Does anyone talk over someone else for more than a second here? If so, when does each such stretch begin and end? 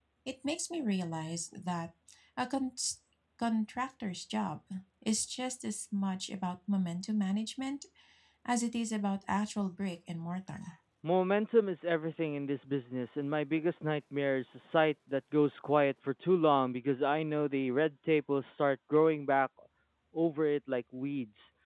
none

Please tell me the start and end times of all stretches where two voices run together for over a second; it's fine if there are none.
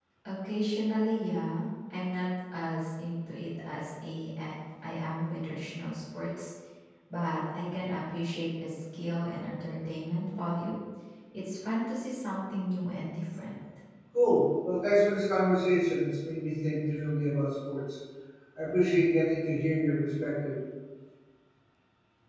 none

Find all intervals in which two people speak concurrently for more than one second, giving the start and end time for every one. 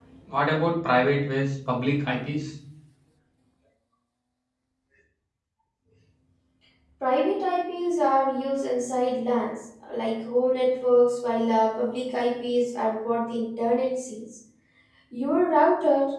none

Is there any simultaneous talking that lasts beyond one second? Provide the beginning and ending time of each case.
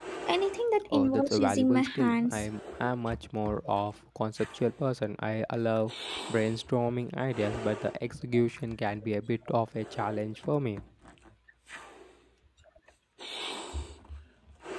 0.9-2.5

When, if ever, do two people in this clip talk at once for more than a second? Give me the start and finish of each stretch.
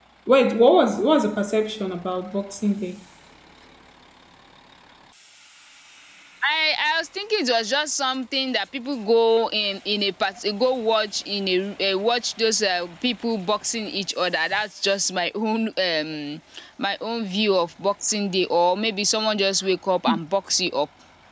none

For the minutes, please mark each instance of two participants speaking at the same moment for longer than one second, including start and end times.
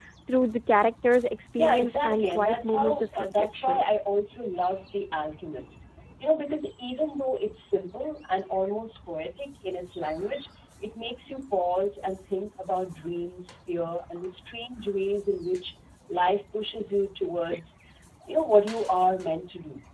1.6-3.8

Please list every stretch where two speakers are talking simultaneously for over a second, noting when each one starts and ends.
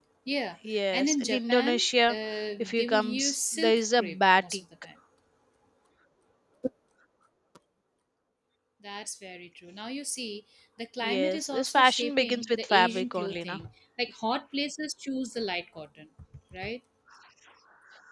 0.9-2.2, 2.6-4.6, 11.0-13.6

